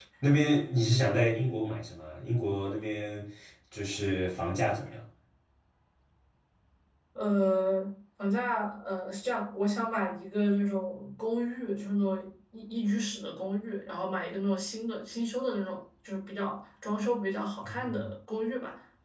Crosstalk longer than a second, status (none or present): none